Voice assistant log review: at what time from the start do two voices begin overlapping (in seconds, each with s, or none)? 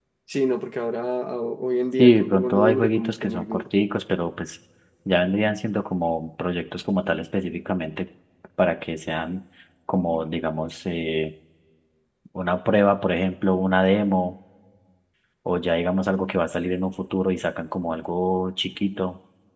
2.0 s